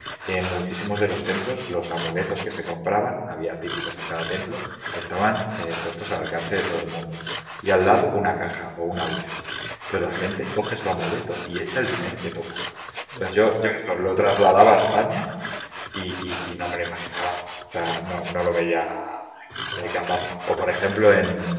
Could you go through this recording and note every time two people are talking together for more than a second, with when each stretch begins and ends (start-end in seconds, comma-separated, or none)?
13.2-14.4